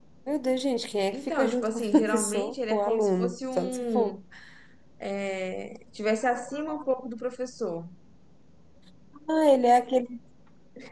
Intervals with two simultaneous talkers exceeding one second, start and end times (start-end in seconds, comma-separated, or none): 1.1-4.2